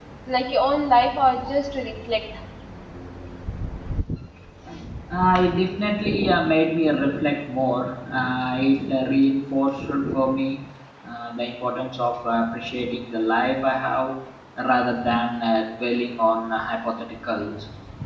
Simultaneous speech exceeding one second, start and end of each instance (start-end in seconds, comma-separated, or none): none